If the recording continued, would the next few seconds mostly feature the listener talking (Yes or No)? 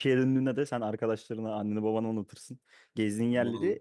No